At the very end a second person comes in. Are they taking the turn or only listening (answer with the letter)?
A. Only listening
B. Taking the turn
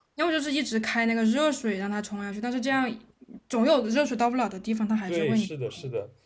B